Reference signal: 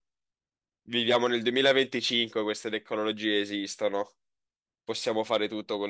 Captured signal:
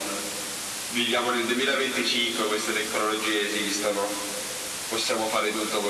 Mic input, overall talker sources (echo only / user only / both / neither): echo only